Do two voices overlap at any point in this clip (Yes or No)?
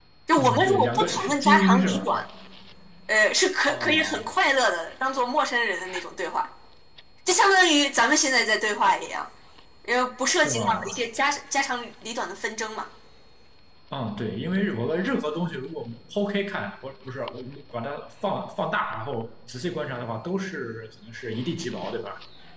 Yes